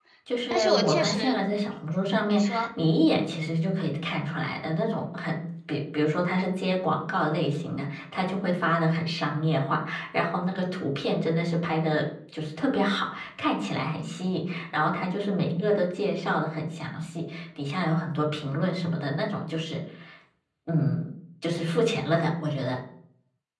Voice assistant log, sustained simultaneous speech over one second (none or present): present